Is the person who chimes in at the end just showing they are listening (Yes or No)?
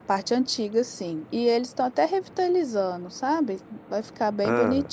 Yes